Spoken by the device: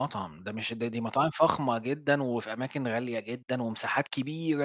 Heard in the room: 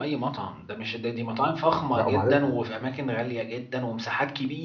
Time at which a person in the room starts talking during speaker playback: 2.0 s

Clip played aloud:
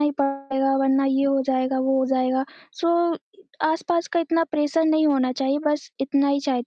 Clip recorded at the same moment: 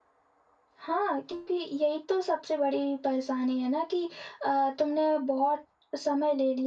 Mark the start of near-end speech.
0.8 s

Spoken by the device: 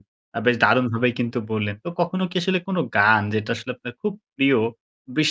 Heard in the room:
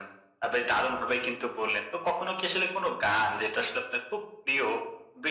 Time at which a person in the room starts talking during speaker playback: none

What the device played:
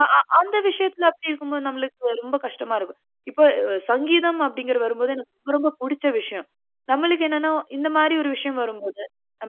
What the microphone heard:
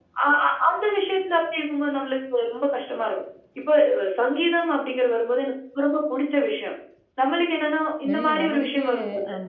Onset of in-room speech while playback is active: 8.1 s

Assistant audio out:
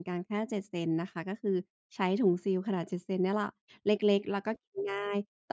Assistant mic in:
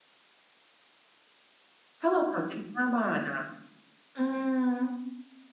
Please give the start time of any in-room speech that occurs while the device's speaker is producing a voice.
2.0 s

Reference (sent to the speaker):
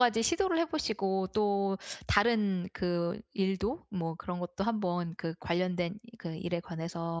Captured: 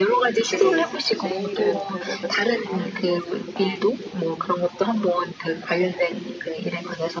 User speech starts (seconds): 0.4 s

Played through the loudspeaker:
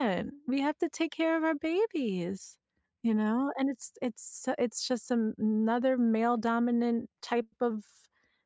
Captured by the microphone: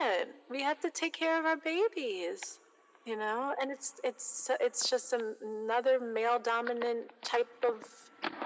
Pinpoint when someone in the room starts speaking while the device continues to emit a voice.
none

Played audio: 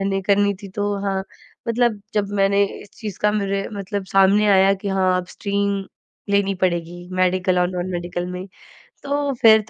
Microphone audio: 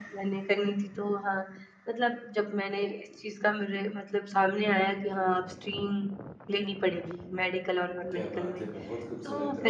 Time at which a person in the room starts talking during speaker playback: 8.1 s

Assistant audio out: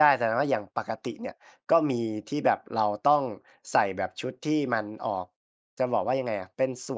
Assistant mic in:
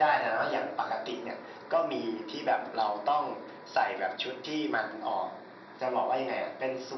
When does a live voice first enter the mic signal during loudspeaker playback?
none

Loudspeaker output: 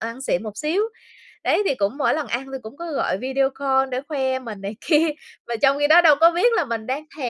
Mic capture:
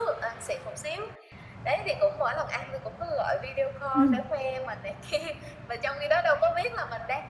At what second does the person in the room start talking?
3.9 s

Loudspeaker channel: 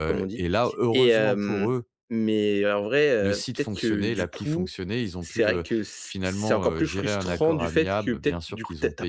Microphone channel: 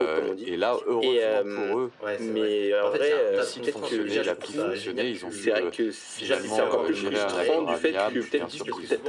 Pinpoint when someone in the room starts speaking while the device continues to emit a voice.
2.0 s

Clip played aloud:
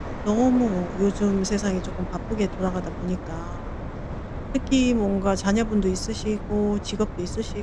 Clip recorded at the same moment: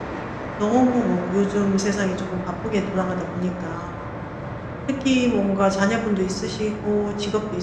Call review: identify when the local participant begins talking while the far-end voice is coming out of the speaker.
none

